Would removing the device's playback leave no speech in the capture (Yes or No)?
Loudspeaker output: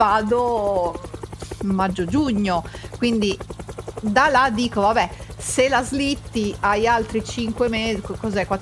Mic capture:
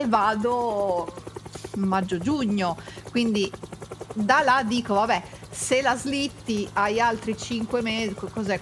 Yes